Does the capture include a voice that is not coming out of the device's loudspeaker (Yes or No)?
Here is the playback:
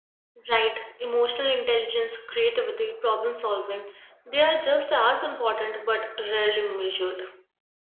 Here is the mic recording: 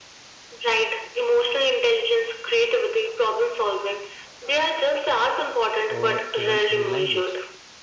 Yes